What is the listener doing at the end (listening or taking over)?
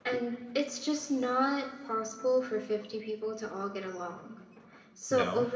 listening